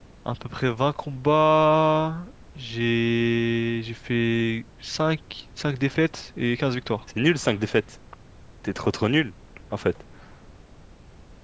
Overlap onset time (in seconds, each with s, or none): none